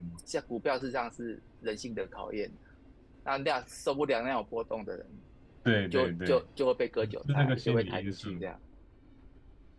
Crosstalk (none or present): present